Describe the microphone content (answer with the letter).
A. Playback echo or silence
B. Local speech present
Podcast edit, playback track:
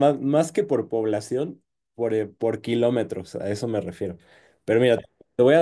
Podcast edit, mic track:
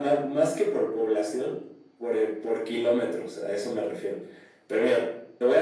A